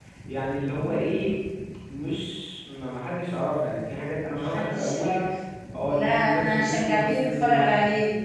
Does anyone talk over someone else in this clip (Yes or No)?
Yes